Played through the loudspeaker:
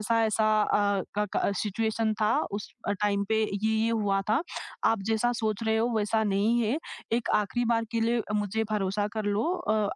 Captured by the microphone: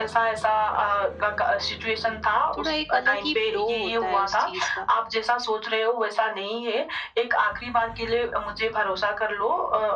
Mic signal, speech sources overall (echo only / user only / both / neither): both